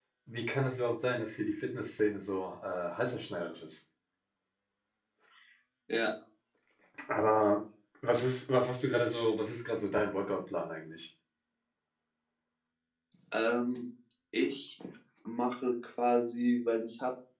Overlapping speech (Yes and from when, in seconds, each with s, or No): No